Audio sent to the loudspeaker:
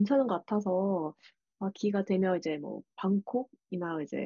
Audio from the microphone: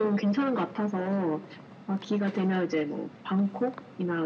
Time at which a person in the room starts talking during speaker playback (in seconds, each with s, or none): none